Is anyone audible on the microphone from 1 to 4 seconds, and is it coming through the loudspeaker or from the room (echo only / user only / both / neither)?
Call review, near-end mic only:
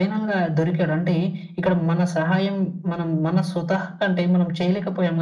echo only